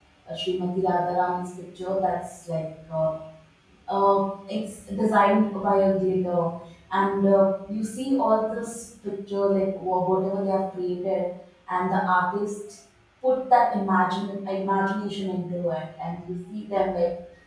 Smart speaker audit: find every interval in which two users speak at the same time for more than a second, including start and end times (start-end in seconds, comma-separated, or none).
none